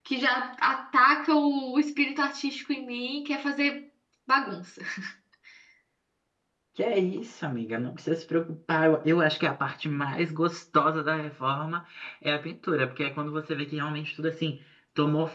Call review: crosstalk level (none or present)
none